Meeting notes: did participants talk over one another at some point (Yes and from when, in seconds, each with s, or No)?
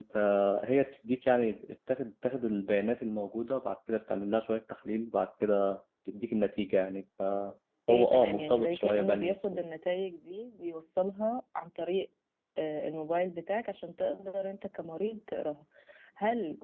Yes, from 7.9 s